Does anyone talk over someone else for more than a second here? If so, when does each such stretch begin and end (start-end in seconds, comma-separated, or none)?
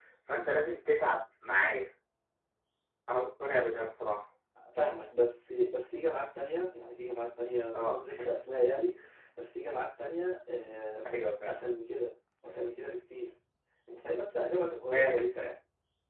none